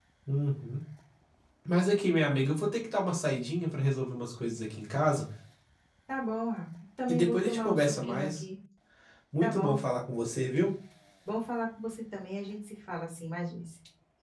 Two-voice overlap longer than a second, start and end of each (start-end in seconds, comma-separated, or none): 7.1-8.4